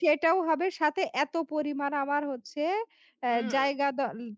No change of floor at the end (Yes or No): Yes